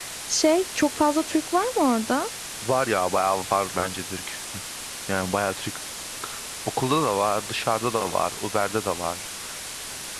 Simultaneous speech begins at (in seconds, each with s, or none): none